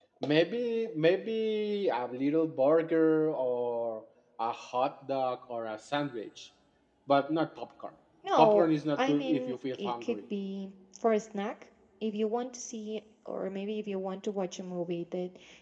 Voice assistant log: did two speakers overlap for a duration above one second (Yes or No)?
Yes